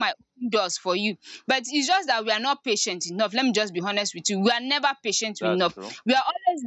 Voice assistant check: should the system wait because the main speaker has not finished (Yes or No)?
Yes